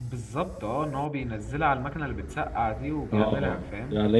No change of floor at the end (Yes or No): No